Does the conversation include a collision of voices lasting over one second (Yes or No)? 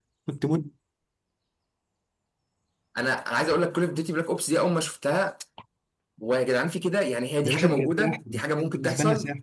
Yes